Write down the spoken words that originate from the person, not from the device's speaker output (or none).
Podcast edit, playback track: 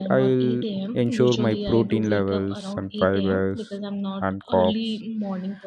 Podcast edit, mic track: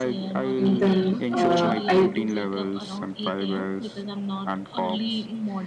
and then uh, i